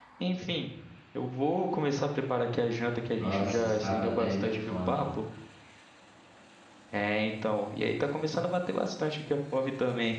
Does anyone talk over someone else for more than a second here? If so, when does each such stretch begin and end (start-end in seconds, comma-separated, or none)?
3.2-5.0